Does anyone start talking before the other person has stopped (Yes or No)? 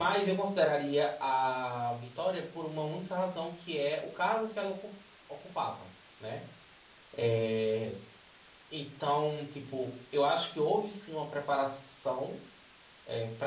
No